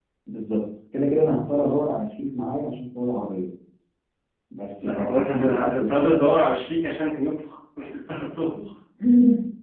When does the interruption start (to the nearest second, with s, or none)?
5 s